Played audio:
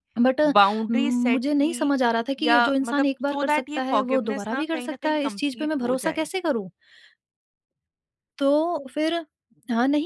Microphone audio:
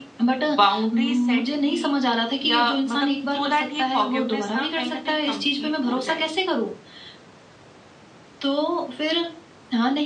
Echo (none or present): present